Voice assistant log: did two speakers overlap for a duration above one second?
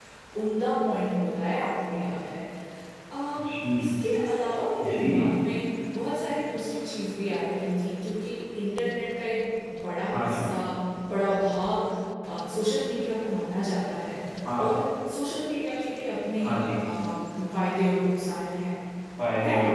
No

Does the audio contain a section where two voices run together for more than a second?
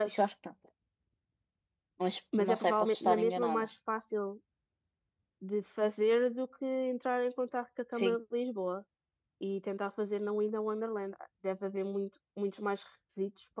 Yes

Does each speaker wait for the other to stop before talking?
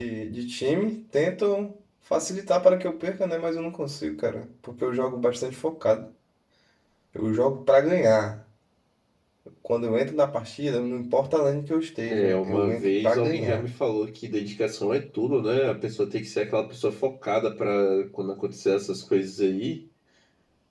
No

